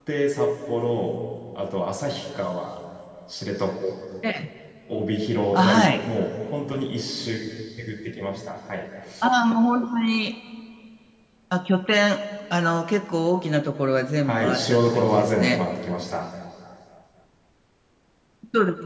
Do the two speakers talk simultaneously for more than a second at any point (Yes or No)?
Yes